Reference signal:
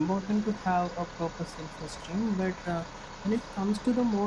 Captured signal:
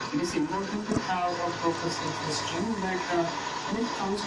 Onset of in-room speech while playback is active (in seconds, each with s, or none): none